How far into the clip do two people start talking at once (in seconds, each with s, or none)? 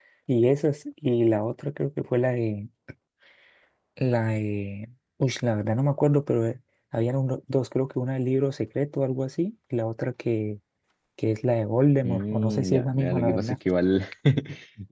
12.0 s